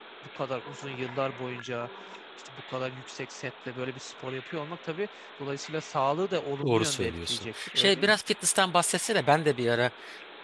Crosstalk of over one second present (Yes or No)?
Yes